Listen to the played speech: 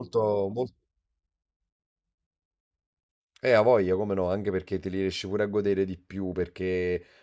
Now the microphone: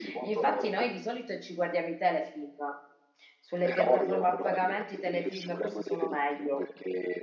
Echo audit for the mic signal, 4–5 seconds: both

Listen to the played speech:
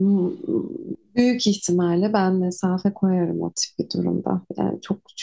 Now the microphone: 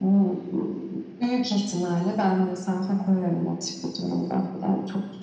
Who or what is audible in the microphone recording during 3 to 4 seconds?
echo only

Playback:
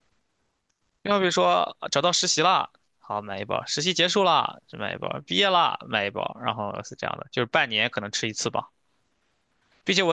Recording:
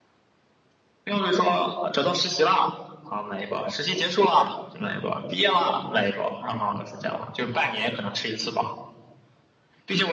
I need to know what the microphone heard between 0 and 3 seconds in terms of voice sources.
echo only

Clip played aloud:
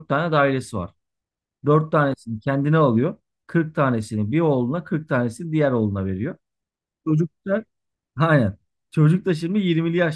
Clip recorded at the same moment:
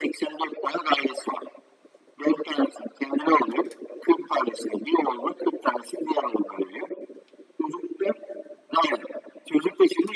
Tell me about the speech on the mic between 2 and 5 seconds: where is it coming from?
echo only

